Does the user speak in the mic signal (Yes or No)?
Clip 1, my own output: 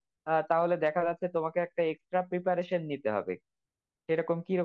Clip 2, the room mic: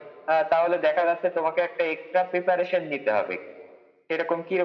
No